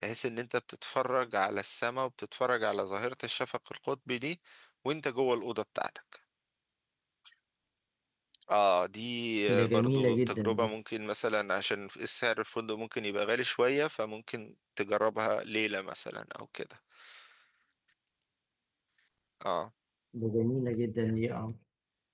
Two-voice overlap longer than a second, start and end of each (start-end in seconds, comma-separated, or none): 9.5-10.7